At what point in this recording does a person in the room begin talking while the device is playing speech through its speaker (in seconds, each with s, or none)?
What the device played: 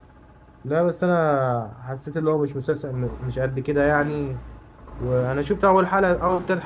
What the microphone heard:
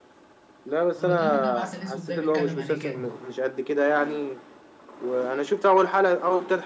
1.0 s